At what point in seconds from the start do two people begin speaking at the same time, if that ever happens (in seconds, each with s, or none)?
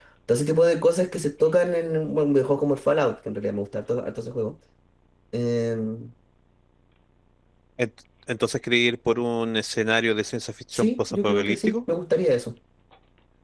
10.7 s